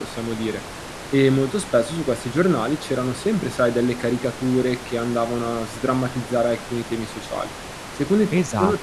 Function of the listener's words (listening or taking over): taking over